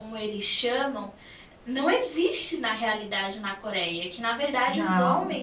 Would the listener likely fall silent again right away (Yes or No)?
Yes